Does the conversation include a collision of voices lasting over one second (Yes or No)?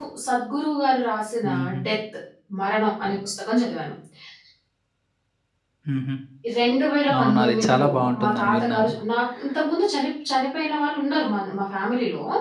Yes